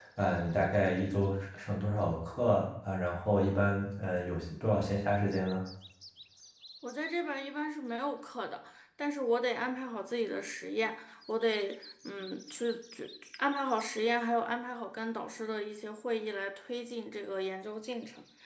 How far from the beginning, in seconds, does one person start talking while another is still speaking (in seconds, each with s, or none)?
none